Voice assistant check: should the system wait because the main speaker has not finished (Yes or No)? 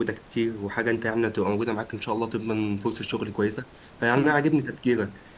Yes